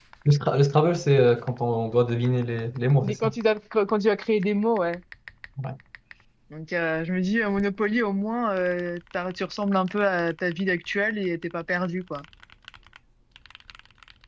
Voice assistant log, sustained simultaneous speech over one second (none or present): none